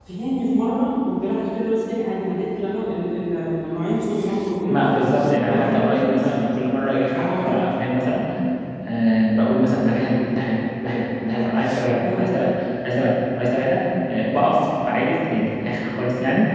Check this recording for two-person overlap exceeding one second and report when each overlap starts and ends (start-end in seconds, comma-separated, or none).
4.7-6.4